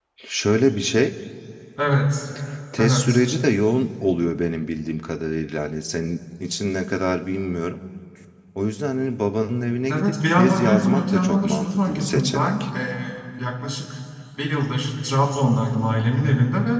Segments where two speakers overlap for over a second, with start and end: 9.9-12.6

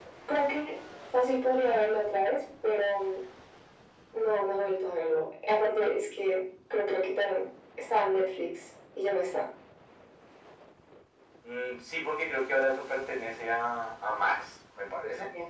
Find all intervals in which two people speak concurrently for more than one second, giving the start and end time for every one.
none

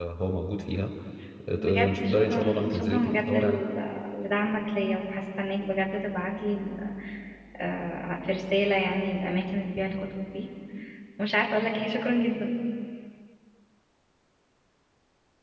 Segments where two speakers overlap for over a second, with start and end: 1.5-3.6

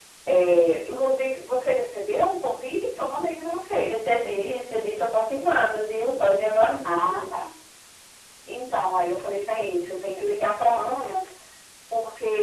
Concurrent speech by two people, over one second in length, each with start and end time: none

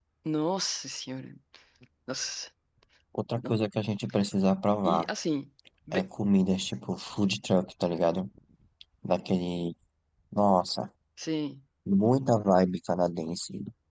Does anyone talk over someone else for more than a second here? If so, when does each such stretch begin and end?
none

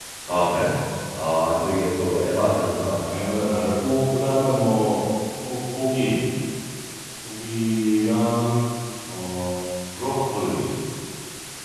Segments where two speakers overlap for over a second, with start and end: none

